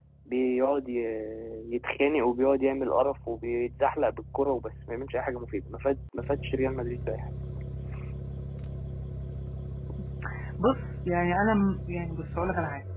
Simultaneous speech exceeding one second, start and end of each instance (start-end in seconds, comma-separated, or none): none